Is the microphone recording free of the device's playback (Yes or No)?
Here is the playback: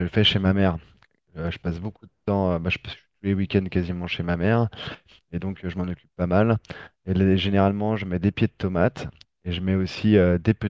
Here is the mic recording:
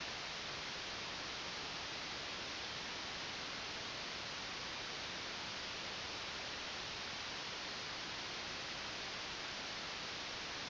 Yes